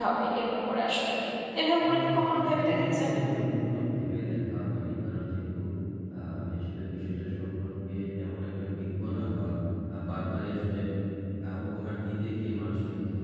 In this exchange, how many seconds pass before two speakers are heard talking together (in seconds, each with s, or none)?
1.9 s